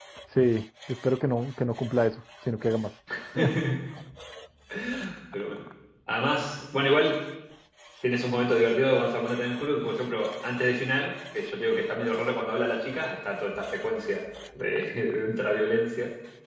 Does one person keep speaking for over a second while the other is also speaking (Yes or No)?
No